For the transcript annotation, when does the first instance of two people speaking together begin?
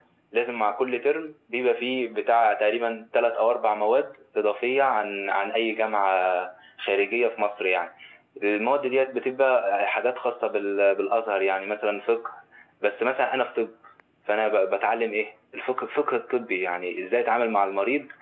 none

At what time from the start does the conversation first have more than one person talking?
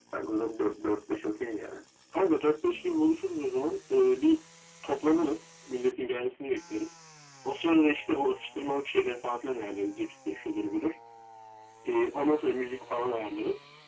none

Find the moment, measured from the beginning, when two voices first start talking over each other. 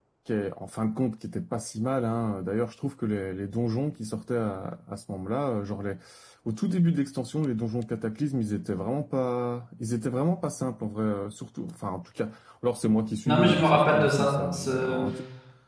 13 s

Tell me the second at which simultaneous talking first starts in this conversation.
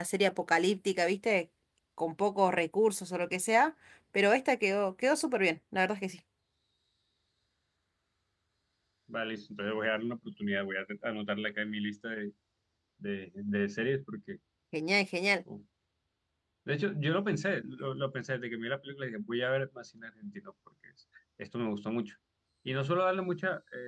none

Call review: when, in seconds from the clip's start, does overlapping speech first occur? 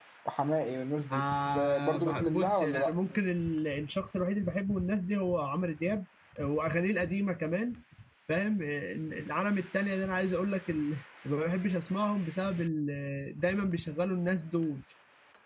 1 s

